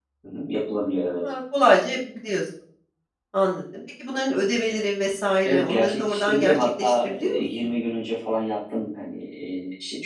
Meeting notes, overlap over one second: present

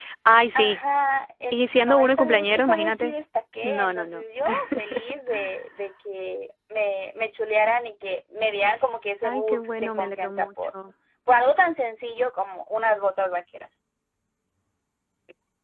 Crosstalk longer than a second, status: present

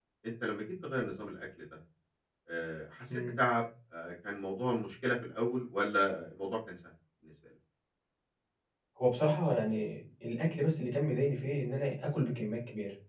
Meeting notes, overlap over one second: none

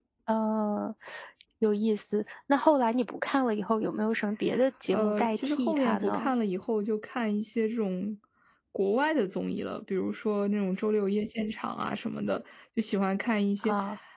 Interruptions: present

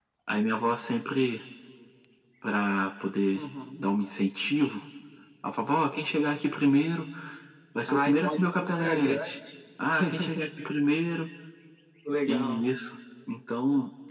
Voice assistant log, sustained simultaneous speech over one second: present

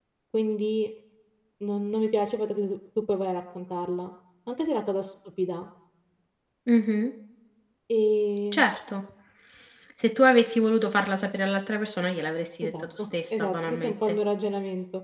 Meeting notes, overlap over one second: present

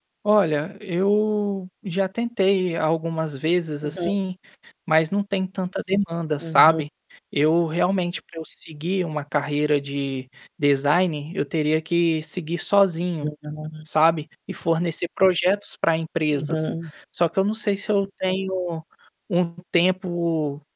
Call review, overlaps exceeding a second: none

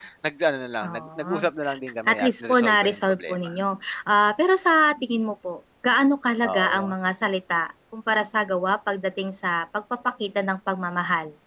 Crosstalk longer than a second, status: present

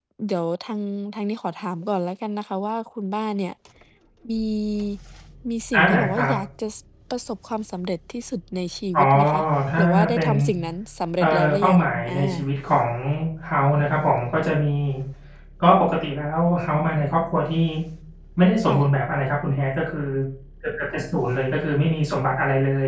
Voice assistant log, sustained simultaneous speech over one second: present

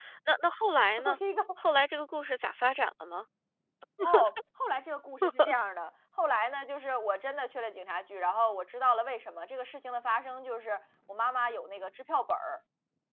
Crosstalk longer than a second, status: none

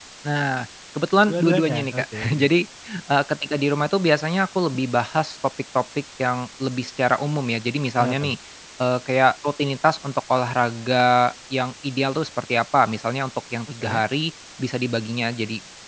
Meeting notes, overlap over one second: present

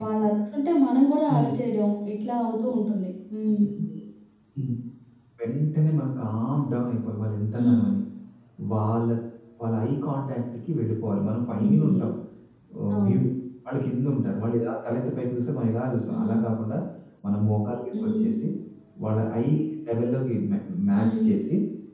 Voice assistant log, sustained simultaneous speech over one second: none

